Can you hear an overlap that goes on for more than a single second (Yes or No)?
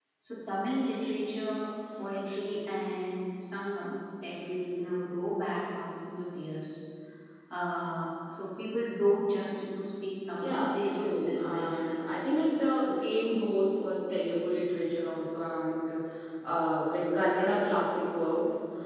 Yes